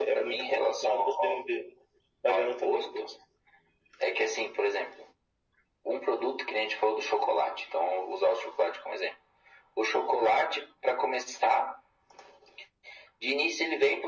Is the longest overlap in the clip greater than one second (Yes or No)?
Yes